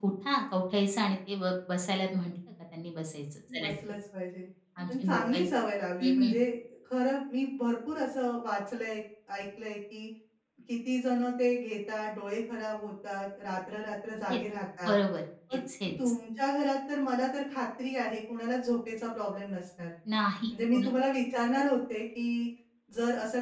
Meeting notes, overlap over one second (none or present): none